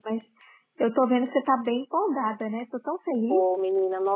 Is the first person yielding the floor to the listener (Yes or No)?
Yes